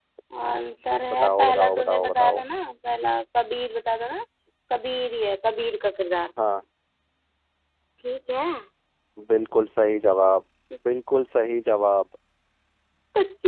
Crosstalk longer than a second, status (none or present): present